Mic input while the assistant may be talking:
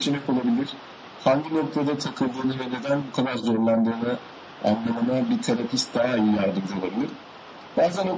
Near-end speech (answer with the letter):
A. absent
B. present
A